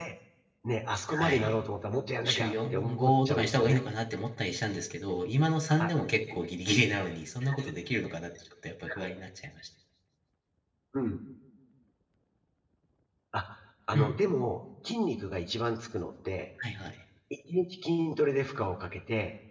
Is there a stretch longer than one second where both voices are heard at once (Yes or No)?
Yes